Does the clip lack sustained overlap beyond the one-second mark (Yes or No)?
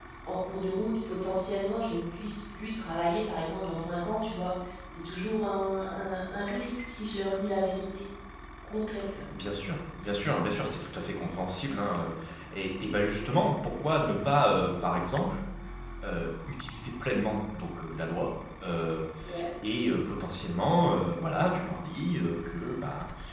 Yes